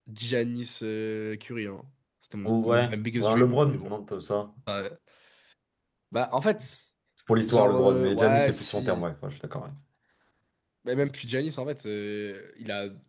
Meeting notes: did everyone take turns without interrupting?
No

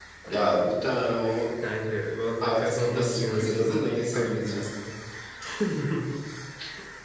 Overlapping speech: Yes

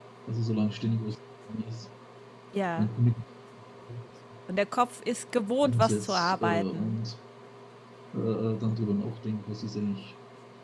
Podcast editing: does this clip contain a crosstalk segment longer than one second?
Yes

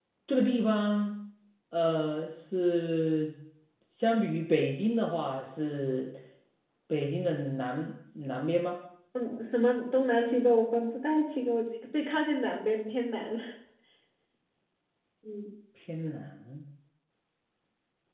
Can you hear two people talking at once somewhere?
No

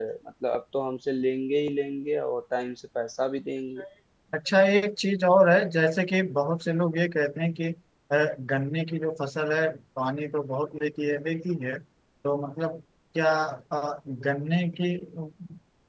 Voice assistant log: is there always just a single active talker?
Yes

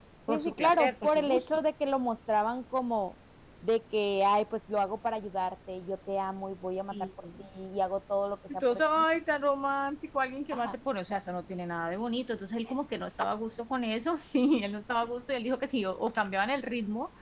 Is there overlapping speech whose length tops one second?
Yes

